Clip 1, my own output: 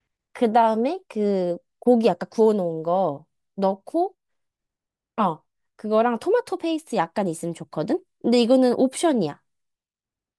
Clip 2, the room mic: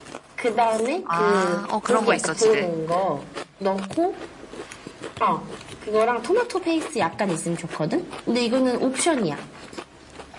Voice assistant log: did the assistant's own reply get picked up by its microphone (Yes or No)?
Yes